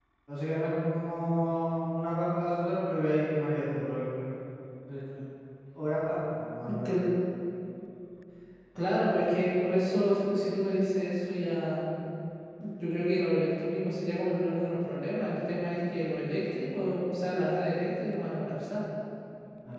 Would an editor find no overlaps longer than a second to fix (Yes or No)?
Yes